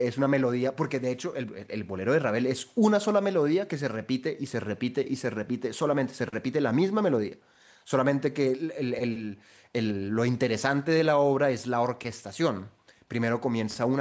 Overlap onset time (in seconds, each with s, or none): none